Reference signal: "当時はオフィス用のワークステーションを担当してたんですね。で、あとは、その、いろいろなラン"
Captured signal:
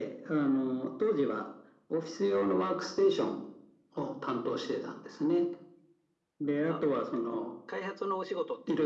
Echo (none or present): present